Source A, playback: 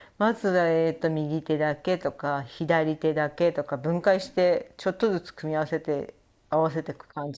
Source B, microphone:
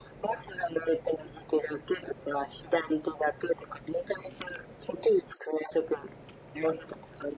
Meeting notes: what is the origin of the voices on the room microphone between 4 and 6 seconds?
echo only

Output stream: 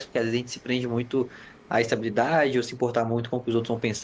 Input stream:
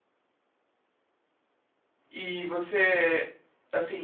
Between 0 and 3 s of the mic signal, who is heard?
user only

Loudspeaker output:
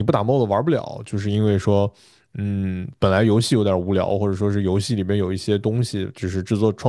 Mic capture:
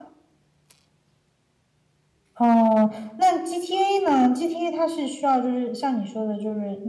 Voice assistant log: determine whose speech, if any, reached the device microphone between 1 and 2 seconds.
neither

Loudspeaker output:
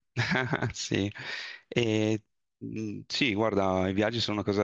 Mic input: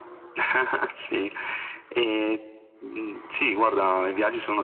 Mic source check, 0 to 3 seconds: echo only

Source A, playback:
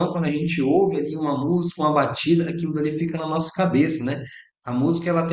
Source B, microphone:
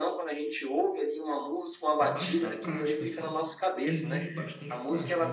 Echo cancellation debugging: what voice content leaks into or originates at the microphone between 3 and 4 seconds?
both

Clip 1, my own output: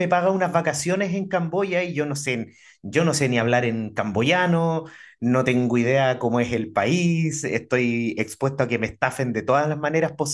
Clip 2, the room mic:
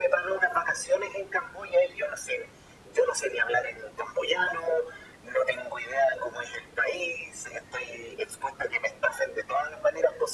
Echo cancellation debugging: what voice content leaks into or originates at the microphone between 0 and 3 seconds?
echo only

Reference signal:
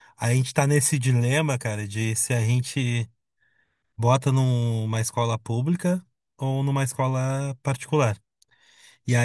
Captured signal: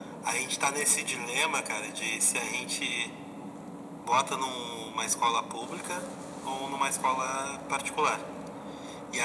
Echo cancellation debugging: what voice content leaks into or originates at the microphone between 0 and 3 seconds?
echo only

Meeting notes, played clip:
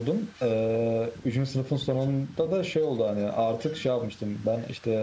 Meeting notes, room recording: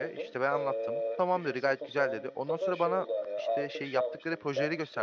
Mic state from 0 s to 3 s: both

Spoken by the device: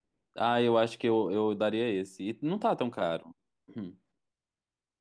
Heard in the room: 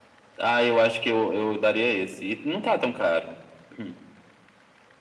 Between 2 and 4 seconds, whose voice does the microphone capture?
echo only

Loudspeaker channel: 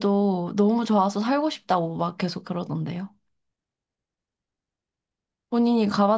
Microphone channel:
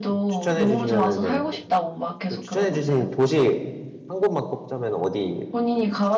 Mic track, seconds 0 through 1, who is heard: both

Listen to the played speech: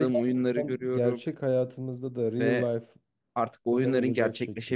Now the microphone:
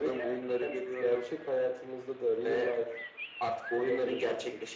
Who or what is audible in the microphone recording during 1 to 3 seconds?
echo only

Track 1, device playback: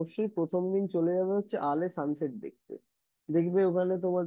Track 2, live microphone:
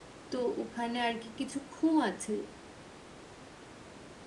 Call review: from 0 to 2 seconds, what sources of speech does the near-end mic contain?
user only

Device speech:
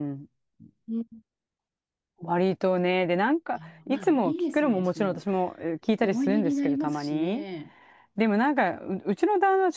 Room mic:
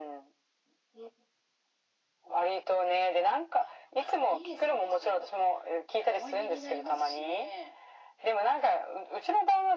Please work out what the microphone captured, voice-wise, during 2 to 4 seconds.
echo only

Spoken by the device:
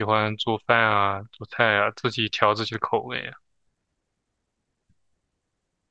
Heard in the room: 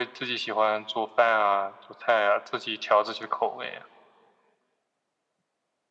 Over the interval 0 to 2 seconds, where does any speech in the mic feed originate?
echo only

